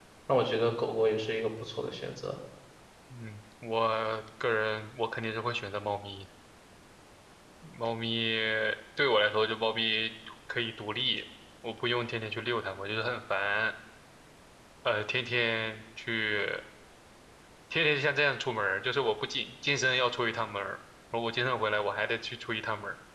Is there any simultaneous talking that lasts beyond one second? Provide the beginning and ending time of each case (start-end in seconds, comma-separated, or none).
none